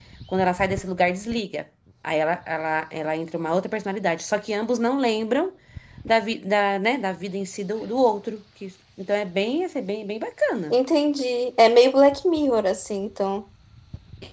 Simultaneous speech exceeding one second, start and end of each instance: none

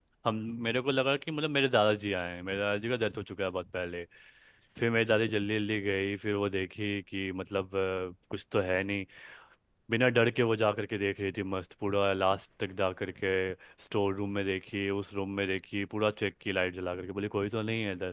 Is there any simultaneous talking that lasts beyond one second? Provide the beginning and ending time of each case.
none

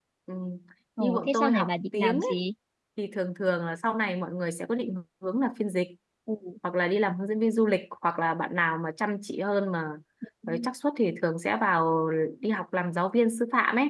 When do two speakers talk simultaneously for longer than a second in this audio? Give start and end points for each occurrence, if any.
1.0-2.4

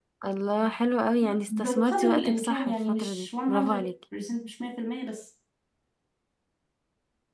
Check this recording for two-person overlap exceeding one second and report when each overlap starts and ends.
1.5-3.9

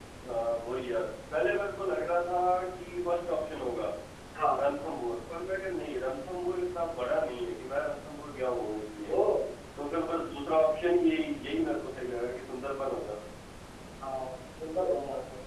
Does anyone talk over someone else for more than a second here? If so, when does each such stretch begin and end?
none

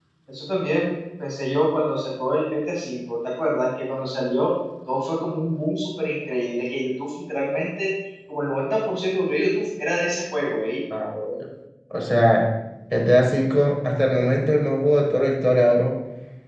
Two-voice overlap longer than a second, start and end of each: none

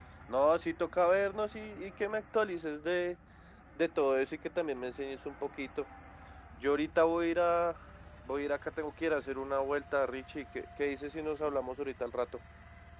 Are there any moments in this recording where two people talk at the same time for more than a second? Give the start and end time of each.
none

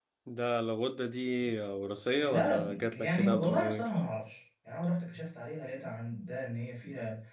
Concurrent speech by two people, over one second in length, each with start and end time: 2.2-3.8

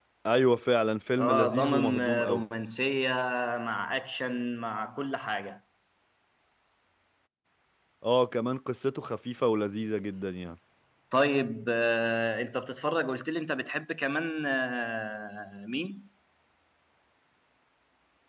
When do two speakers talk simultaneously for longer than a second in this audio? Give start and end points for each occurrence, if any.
1.2-2.4

